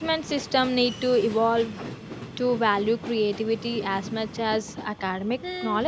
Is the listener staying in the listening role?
No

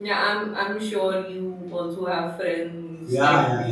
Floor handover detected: Yes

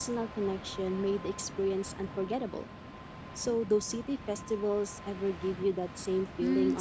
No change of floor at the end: No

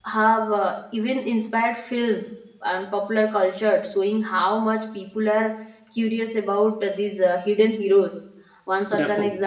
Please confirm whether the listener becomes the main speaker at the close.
No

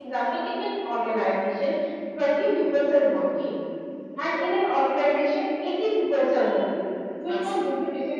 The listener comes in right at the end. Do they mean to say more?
No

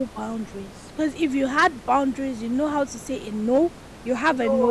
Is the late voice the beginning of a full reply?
No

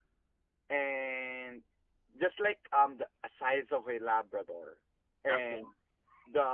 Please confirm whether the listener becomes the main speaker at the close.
No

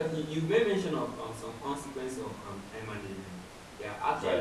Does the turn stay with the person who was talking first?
Yes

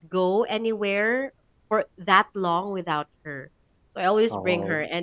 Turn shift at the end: No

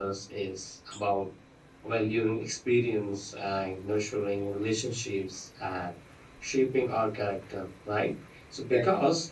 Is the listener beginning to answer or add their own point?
No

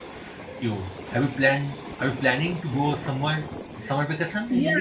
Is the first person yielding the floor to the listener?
Yes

